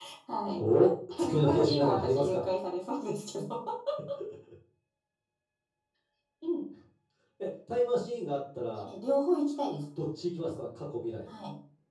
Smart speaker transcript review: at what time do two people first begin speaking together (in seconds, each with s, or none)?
1.1 s